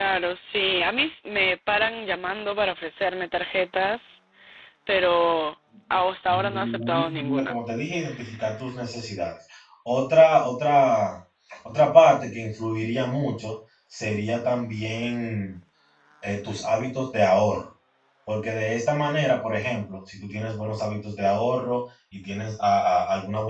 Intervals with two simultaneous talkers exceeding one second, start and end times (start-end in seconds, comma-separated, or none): 6.3-7.5